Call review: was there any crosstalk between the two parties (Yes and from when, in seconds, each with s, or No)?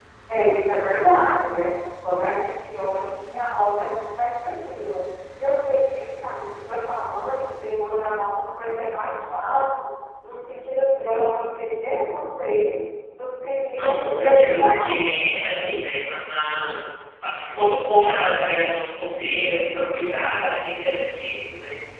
Yes, from 13.7 s